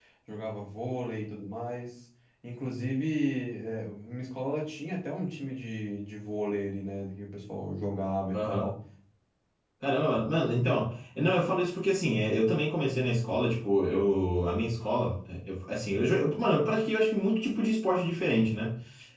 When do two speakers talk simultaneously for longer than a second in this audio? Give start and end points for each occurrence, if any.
none

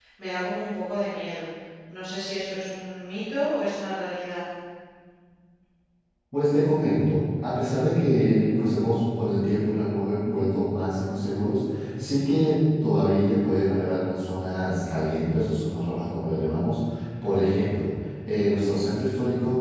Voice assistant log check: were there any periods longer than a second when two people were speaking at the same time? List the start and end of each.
none

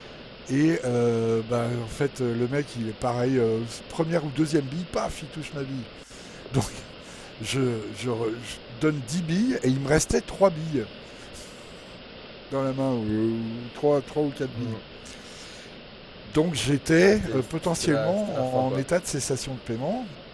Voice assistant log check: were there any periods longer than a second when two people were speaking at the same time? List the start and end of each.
17.0-18.9

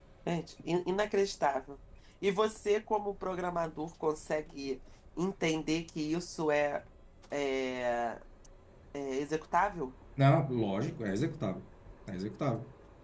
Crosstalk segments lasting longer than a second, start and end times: none

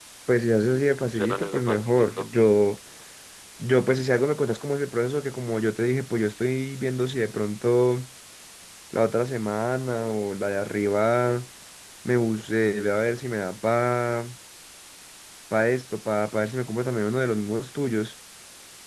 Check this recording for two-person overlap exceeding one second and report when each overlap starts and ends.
0.7-2.2

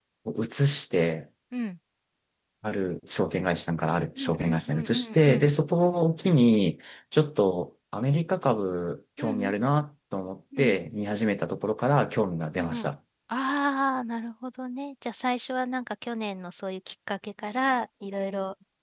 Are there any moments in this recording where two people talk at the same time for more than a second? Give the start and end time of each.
4.2-5.5

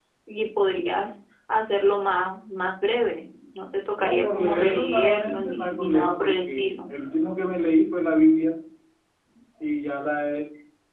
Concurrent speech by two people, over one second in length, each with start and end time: 4.0-6.9

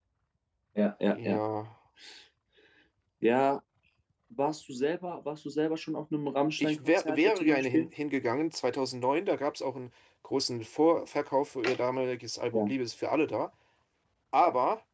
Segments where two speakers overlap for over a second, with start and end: 6.6-7.9

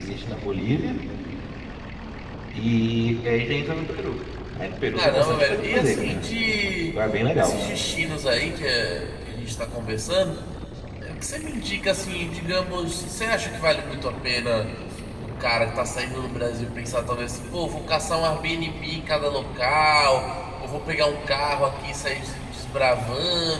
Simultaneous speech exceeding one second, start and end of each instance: 4.9-6.2

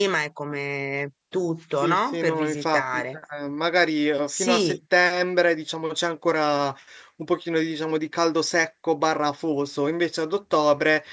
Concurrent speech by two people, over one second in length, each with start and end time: 1.8-3.2

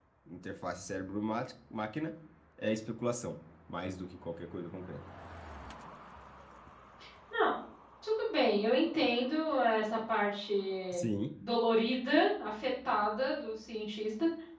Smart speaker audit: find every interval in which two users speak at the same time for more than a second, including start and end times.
none

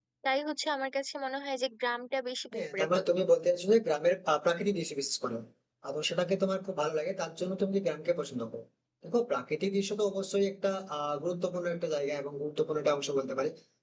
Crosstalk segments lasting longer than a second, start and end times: none

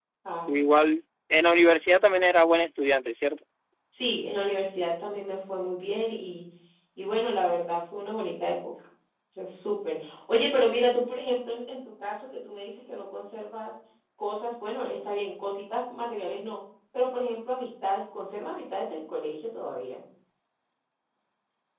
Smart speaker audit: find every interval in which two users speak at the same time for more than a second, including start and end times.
none

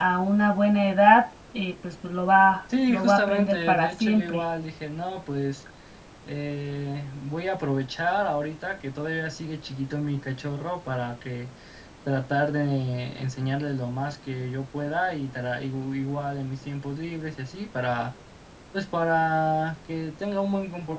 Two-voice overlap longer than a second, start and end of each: 2.9-4.4

